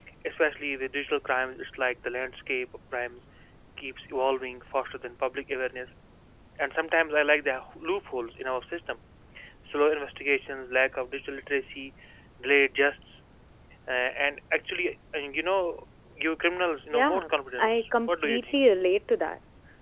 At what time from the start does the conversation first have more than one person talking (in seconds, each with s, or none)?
16.9 s